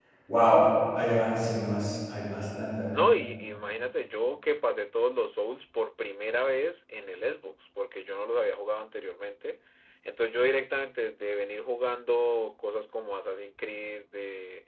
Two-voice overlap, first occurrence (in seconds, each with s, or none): none